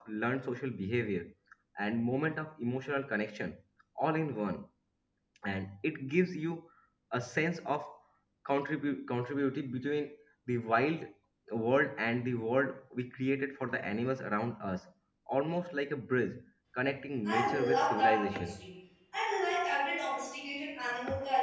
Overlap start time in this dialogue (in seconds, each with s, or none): 17.2 s